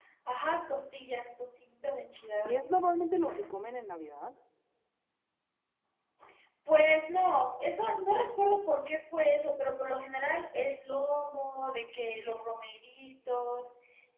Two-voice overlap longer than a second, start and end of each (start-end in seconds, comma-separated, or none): none